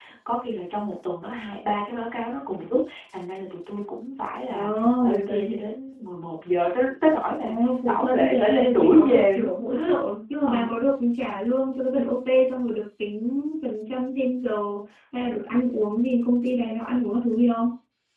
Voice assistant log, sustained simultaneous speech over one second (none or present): present